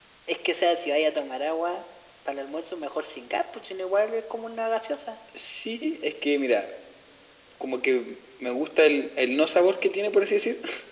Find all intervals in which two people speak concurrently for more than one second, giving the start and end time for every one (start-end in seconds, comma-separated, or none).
none